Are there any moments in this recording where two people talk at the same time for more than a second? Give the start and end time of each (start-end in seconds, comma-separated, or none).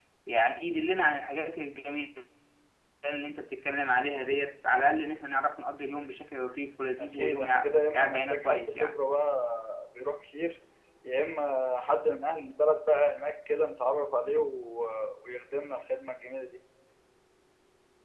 7.0-9.0